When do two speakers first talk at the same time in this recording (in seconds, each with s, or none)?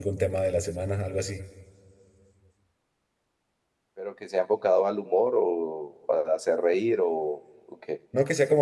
none